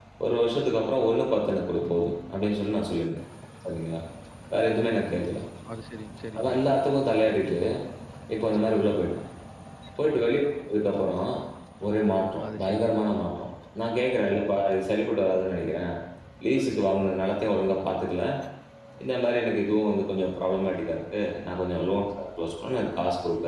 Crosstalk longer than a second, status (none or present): none